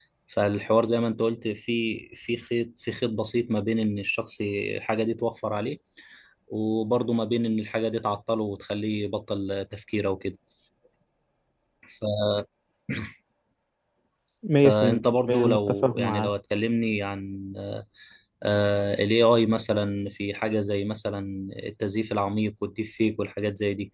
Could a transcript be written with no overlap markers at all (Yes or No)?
No